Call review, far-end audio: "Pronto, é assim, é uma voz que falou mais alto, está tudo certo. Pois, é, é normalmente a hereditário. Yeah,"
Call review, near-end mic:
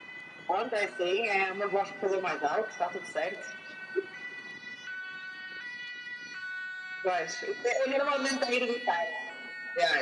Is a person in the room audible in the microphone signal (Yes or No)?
No